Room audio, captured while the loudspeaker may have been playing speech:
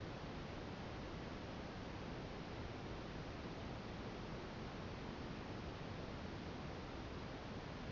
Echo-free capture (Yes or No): Yes